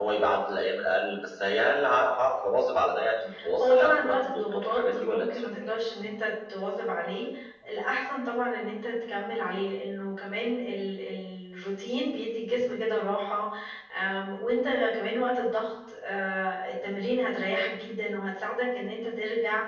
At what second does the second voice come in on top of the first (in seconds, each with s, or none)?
3.6 s